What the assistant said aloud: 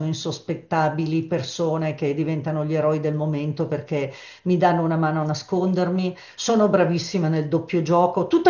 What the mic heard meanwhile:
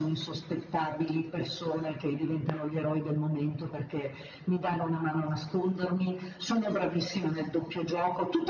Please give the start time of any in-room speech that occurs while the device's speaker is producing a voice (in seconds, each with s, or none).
none